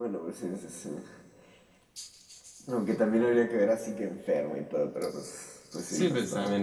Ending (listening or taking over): taking over